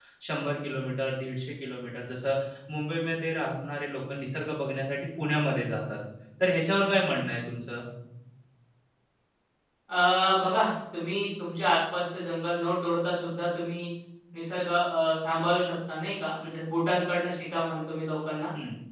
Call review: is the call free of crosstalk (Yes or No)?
Yes